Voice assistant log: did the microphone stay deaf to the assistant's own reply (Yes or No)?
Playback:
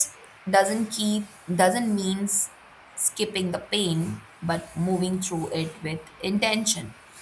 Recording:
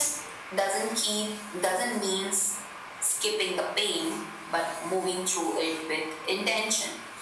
No